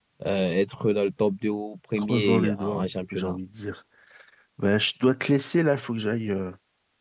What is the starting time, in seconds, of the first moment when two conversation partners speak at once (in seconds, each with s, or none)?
2.0 s